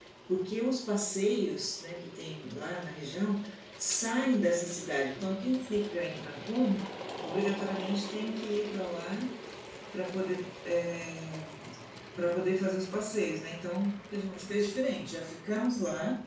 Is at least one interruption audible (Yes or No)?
No